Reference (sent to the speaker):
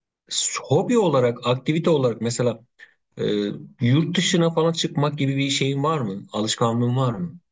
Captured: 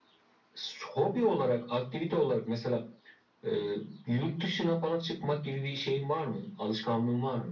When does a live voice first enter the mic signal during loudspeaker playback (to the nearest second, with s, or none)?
none